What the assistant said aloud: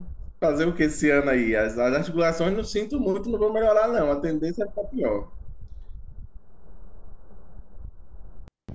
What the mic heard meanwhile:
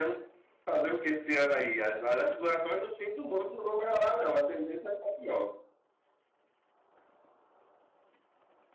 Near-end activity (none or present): none